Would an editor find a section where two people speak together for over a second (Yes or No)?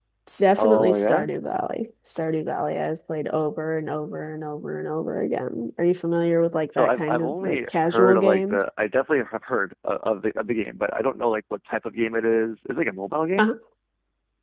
Yes